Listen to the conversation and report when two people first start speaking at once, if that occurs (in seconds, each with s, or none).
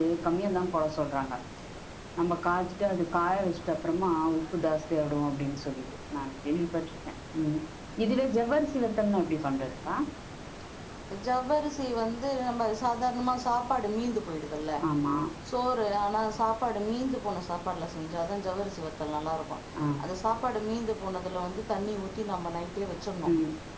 none